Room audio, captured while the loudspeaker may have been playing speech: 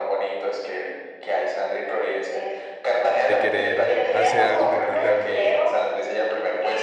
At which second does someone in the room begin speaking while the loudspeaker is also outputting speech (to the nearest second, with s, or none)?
3 s